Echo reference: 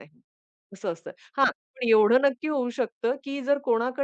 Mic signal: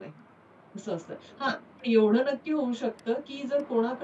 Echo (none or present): present